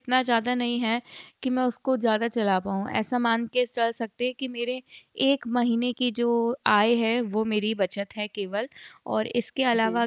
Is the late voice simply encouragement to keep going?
Yes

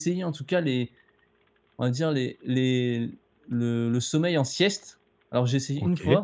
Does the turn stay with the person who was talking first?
Yes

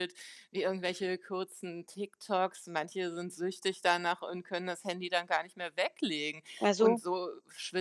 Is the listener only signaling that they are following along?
Yes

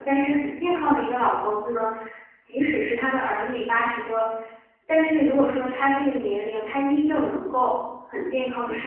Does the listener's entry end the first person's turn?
No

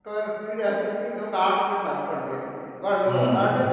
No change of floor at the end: Yes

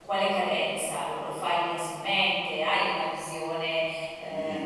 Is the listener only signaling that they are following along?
No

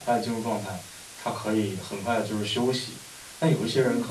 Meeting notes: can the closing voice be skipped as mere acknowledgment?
Yes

